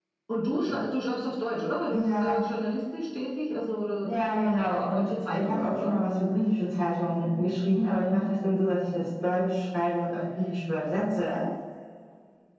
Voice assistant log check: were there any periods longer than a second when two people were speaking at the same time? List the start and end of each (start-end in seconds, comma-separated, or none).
4.0-6.0